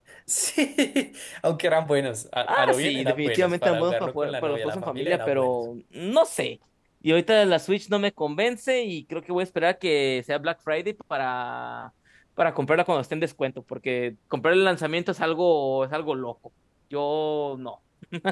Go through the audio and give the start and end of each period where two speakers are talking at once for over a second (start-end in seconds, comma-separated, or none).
2.5-5.6